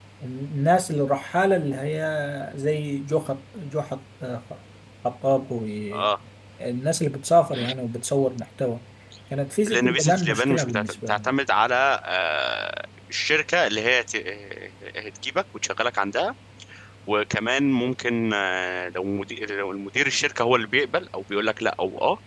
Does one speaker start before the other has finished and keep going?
Yes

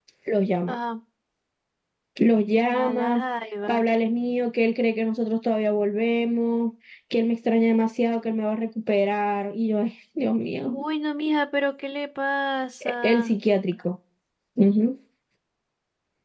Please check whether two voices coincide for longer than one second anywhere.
No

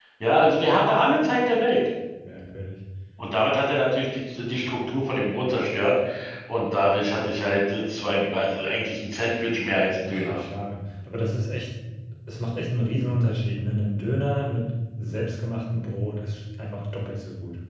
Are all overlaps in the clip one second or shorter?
Yes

